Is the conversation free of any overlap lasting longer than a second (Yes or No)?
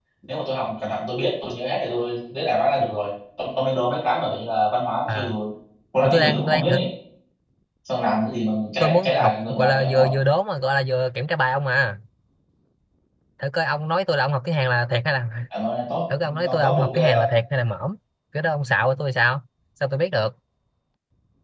No